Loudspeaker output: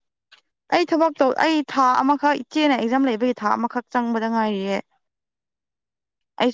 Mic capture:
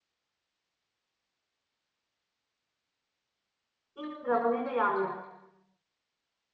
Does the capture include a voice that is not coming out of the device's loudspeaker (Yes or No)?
Yes